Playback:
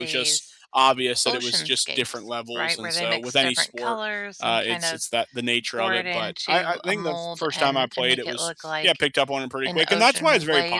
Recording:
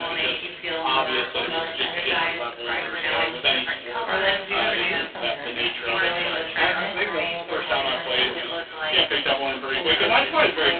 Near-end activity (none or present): present